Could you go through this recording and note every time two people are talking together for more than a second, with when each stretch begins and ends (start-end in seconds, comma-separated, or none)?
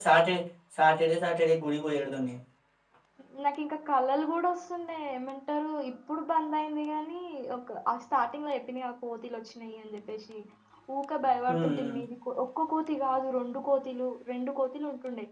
none